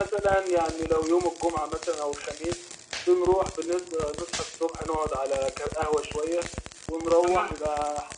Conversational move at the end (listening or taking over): listening